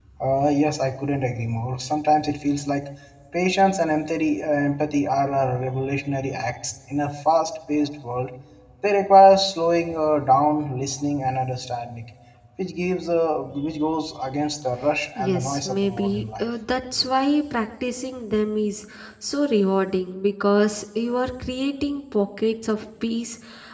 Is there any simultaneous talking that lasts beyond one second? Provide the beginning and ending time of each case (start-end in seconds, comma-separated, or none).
15.3-16.5